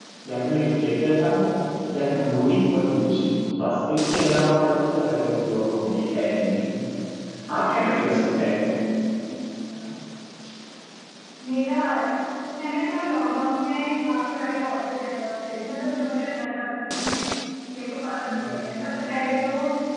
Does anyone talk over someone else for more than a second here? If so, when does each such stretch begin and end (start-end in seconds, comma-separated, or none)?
none